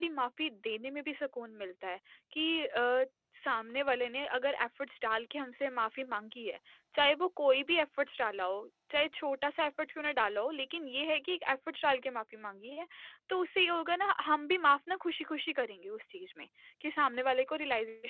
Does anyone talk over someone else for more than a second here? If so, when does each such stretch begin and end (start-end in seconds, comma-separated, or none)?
none